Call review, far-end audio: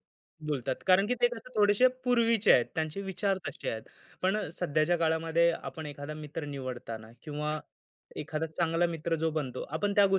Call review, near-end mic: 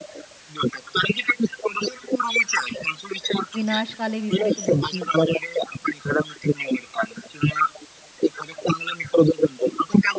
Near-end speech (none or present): present